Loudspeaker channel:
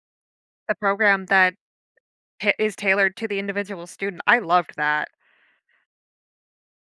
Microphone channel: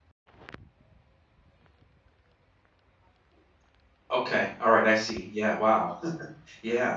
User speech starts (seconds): 4.1 s

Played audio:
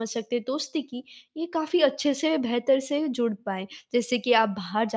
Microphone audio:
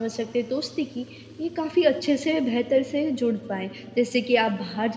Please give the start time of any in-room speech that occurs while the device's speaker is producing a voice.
none

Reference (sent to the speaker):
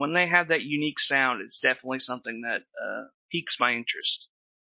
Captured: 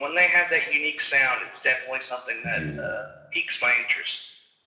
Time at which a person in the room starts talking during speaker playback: 2.4 s

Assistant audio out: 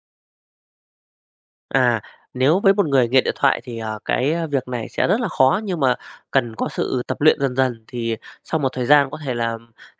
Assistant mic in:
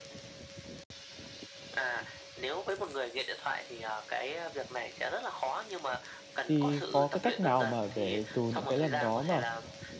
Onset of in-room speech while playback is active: 6.5 s

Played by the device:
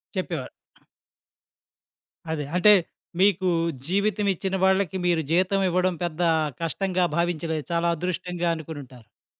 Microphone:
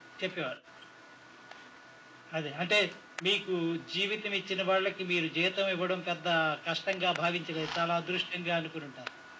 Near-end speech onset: none

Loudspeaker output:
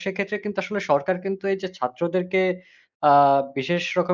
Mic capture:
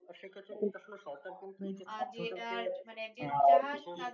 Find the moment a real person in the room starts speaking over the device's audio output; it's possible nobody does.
1.9 s

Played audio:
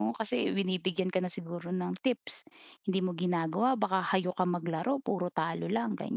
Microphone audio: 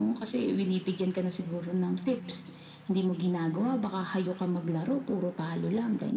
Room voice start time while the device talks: none

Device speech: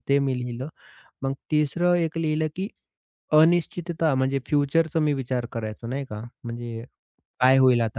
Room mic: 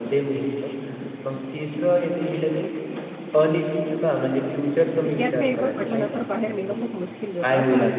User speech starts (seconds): 5.0 s

